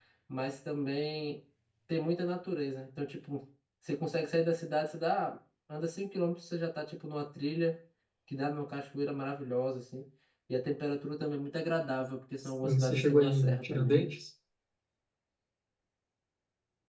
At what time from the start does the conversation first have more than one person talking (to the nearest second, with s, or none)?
13 s